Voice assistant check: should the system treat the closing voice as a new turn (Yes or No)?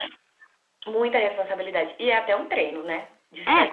No